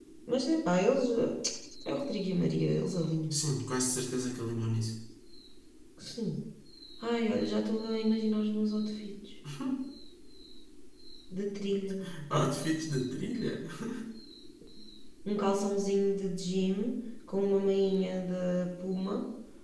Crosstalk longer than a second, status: none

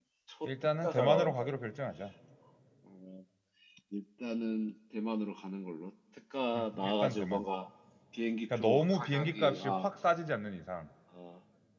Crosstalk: present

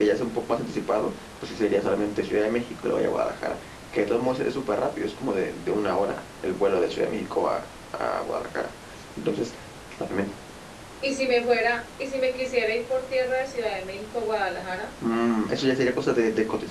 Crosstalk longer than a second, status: none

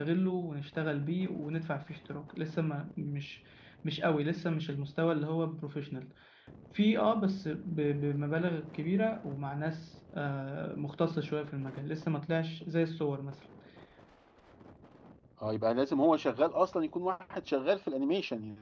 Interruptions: none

